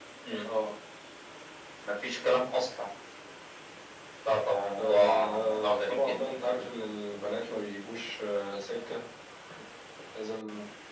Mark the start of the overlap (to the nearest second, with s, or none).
5 s